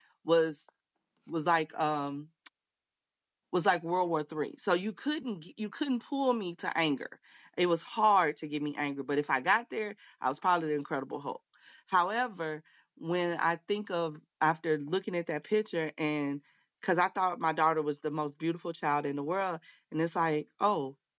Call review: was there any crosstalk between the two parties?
No

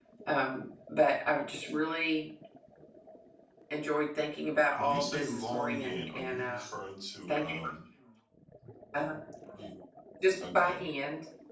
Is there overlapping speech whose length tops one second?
Yes, from 4.8 s

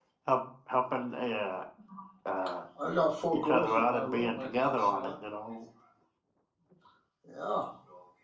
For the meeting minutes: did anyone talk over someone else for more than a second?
Yes, from 3.3 s

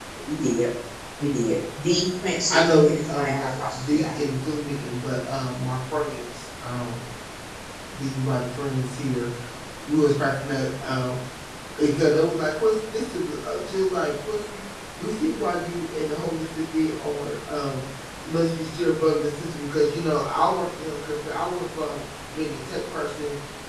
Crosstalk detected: Yes, from 2.5 s

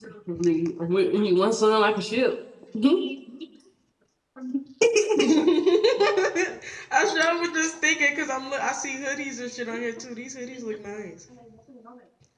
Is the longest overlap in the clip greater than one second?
No

